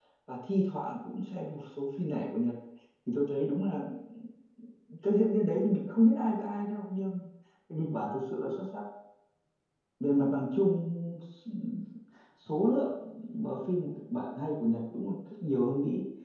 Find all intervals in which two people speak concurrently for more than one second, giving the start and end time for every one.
none

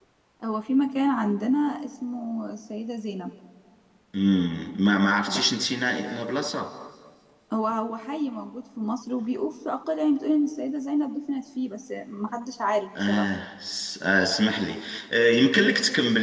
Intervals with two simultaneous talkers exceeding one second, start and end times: none

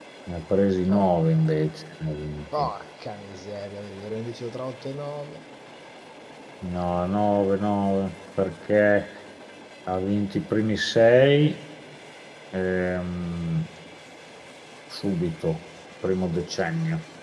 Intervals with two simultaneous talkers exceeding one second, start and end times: none

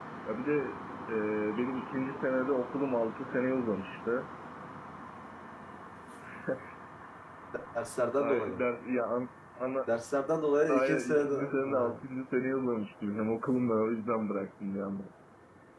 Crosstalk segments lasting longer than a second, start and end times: 10.7-11.9

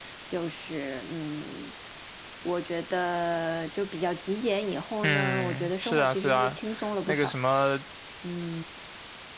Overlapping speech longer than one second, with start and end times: 5.0-6.6

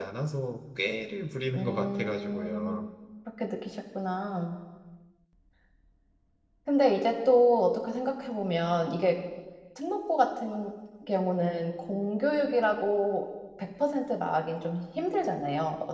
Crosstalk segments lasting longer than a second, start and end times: 1.6-2.8

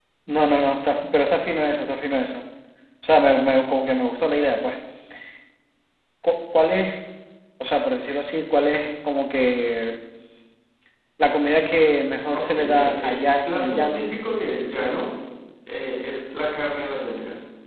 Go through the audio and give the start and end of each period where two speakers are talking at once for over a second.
12.3-14.0

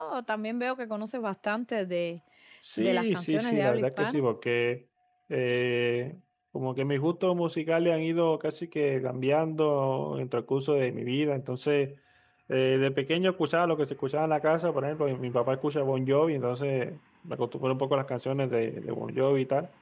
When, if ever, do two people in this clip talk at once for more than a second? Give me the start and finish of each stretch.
2.8-4.2

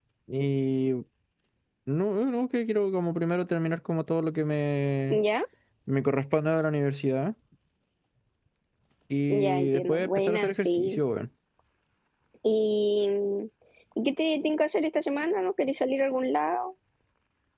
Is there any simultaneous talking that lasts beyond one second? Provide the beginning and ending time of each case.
9.3-11.0

